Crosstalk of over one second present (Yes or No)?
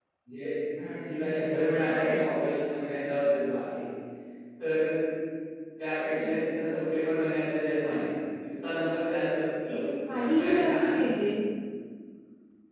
Yes